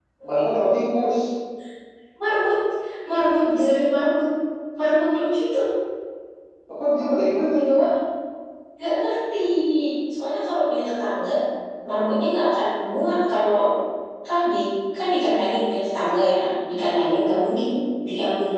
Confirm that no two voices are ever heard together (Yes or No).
Yes